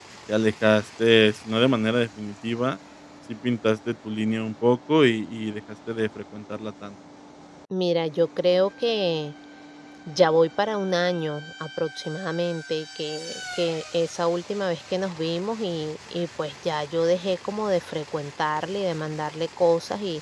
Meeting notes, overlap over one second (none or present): none